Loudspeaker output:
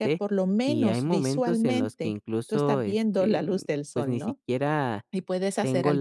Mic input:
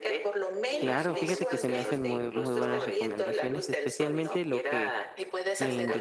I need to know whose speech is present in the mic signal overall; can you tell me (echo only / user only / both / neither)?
both